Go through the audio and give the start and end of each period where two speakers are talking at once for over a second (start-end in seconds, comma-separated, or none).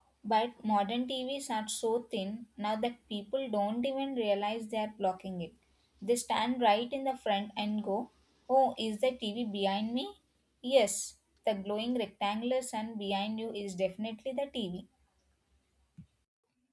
none